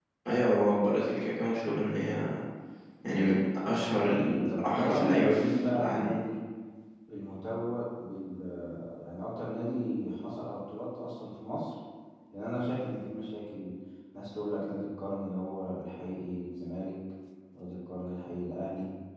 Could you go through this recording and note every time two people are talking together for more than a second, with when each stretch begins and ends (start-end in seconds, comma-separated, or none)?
4.2-6.1